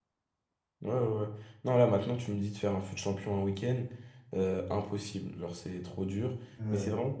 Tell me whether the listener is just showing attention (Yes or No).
Yes